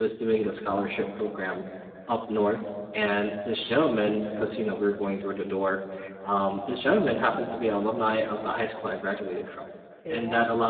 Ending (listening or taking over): listening